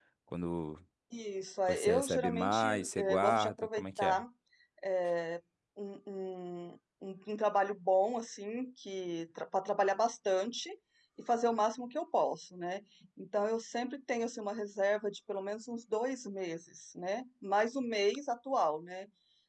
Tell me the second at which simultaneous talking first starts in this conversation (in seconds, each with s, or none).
1.7 s